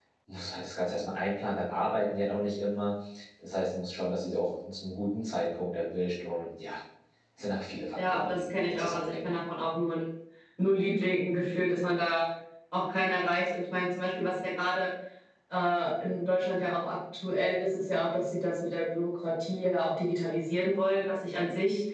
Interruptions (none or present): present